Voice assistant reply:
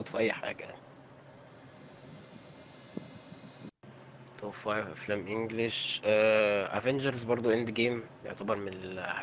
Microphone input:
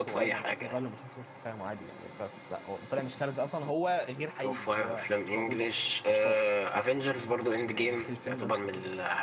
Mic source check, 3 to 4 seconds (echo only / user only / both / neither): user only